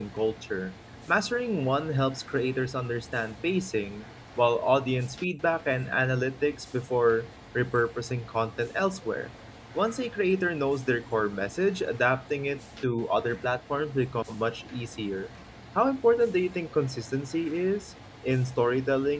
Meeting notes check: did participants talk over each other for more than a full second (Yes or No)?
No